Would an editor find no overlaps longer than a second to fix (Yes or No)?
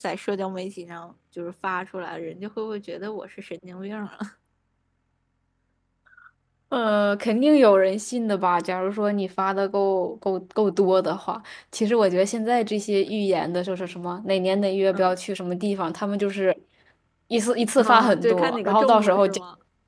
No